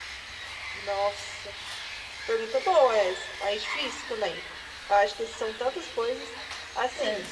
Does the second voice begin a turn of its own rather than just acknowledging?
No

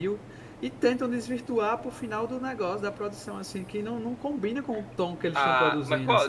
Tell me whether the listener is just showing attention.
No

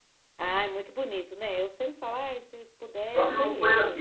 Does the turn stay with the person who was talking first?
No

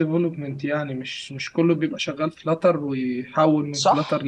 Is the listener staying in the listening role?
No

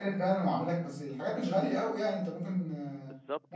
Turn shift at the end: Yes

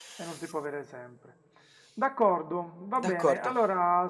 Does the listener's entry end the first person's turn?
No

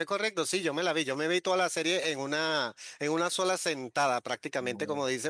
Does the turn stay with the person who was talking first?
Yes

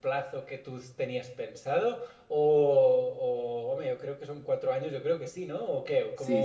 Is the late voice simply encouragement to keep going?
No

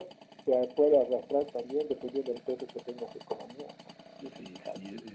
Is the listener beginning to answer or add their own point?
Yes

